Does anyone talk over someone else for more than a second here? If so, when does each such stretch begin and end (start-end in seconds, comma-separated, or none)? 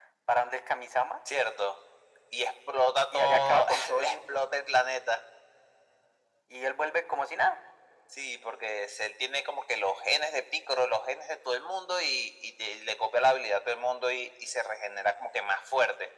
3.1-4.4